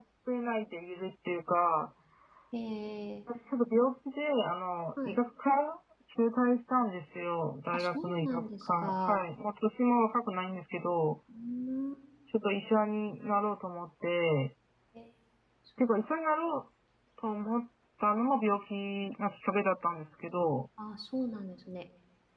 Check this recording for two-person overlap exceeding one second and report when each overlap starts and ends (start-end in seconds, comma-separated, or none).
7.7-9.2